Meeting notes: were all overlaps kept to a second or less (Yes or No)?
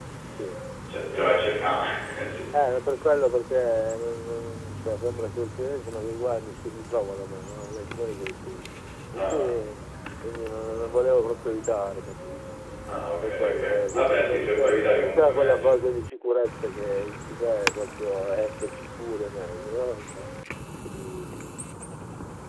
No